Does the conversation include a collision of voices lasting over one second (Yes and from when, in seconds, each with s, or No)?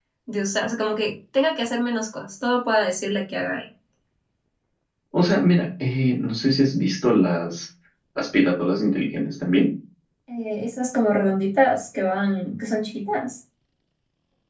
No